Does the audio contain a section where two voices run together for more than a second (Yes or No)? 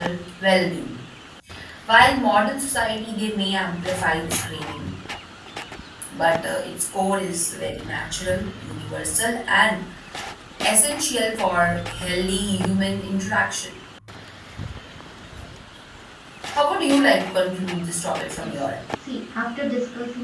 No